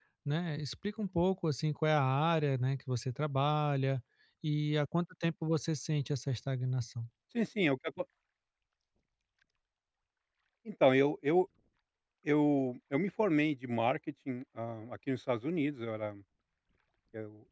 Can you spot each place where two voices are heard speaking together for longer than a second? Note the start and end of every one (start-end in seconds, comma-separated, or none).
none